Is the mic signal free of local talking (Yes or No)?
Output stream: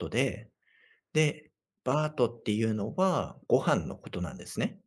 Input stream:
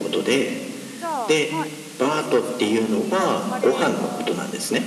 No